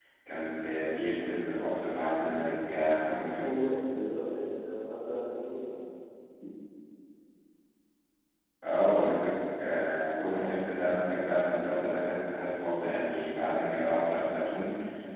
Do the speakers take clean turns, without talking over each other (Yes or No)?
Yes